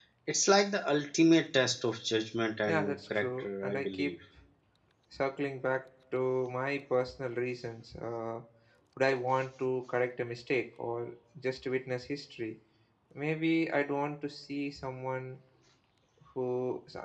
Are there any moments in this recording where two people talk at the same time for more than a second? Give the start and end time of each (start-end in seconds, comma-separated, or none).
2.7-4.2